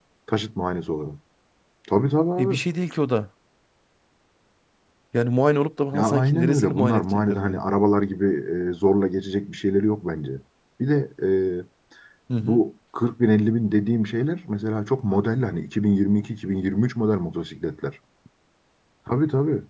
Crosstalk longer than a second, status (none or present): present